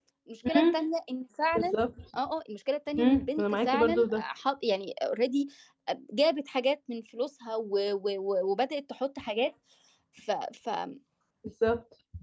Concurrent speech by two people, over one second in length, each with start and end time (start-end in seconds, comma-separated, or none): 3.0-4.2